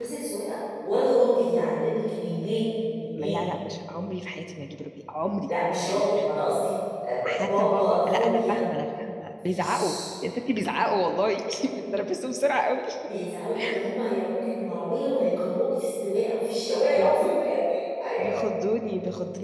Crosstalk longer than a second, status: present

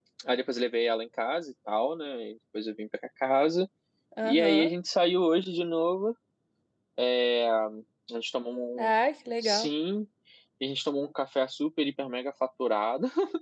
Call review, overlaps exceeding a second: none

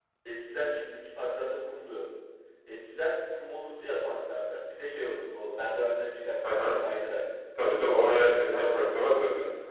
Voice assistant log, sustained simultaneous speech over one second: present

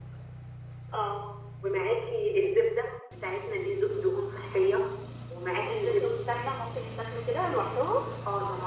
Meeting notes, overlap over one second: none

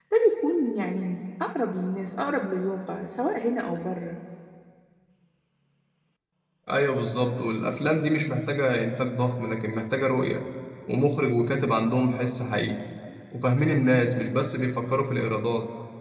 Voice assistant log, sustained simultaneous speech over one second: none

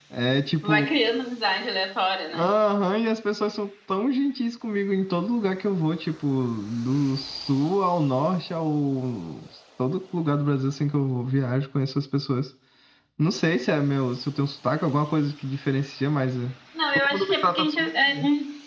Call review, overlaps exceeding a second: present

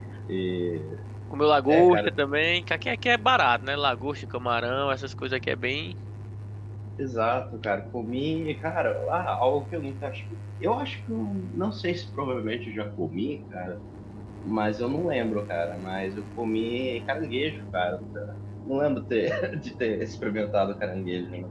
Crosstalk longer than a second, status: none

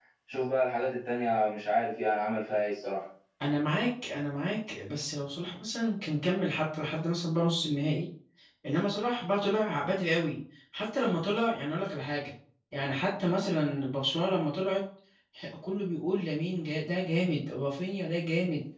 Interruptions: none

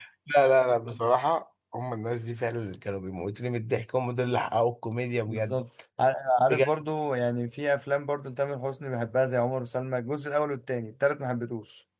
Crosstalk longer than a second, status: none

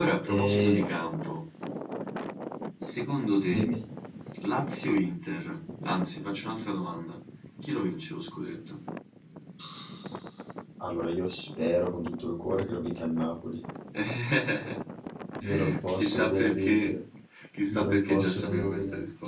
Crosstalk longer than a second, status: present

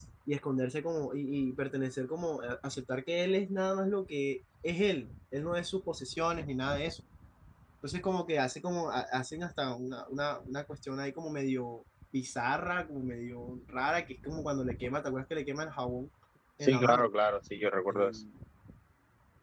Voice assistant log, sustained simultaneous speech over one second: none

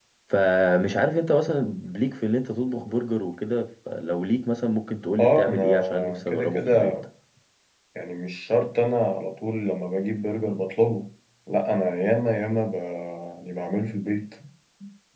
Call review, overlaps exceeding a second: present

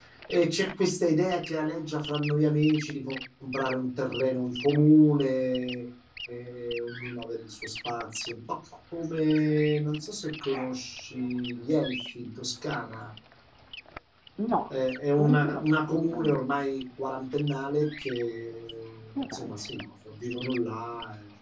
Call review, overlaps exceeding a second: present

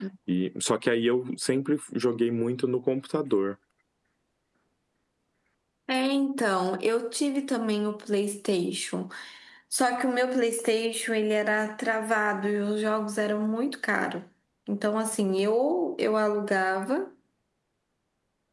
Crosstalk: none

